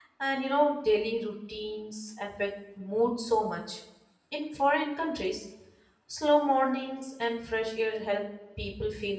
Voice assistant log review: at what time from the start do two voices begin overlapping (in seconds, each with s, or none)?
none